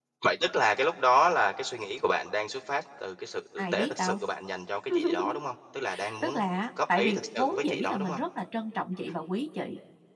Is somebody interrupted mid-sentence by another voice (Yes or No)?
Yes